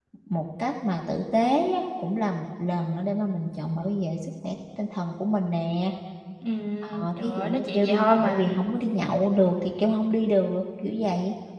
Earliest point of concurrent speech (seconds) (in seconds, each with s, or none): 6.8 s